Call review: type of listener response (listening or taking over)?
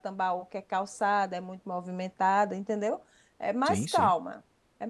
listening